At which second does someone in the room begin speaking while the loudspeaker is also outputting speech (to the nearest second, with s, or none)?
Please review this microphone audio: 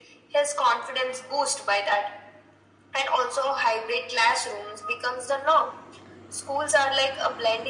none